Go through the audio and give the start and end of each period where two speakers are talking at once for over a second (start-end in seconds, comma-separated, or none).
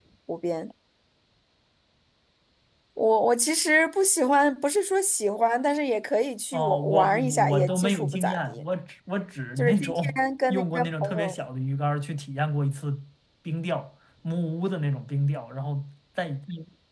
6.5-8.6, 9.6-11.3